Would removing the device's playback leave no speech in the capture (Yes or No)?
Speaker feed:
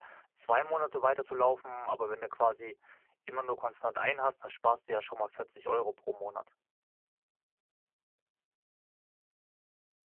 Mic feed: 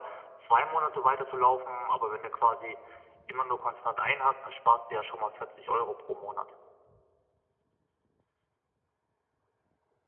Yes